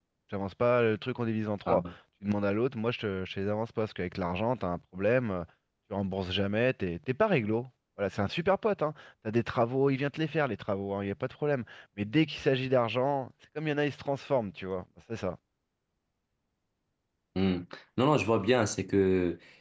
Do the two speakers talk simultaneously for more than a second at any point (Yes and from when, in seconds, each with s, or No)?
No